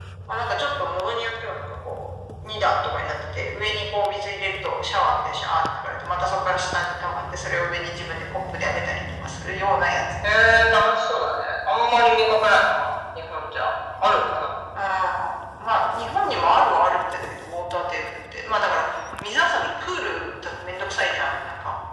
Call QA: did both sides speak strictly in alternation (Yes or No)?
Yes